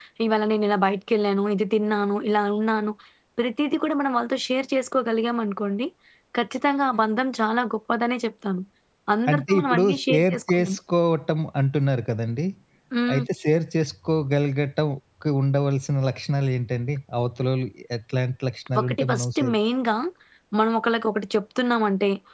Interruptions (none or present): present